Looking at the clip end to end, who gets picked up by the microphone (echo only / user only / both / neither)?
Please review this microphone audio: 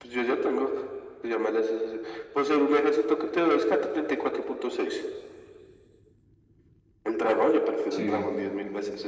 both